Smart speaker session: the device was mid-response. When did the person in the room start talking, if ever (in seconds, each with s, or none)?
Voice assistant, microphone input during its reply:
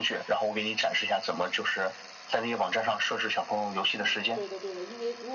4.0 s